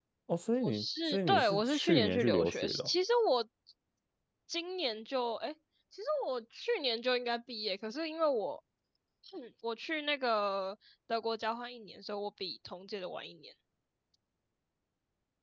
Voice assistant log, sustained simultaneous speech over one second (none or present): present